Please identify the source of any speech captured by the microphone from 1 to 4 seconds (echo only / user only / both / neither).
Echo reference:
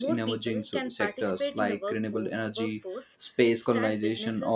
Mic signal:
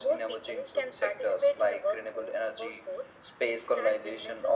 echo only